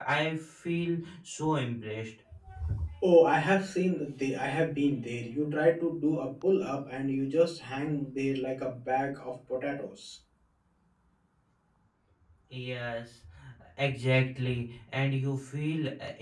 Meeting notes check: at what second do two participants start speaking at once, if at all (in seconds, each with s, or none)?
none